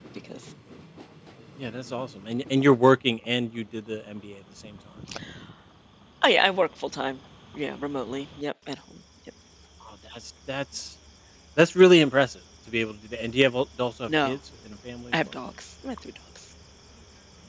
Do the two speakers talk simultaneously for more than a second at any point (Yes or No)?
No